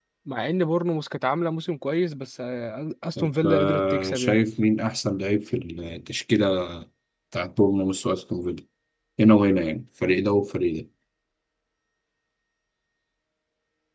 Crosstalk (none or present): present